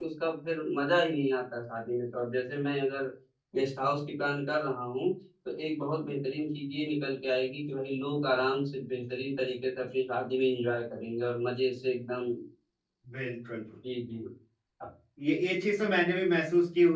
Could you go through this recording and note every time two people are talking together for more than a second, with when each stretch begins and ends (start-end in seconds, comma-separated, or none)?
none